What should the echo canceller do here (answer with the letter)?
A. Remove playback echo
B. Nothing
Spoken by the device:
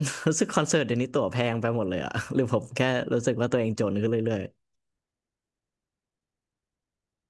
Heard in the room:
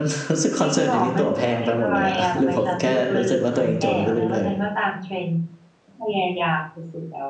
A